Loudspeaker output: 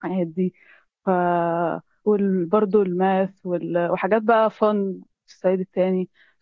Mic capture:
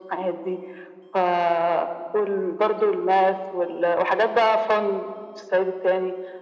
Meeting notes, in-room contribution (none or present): none